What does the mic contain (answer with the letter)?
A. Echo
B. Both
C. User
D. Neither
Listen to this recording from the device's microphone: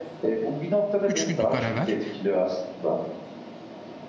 B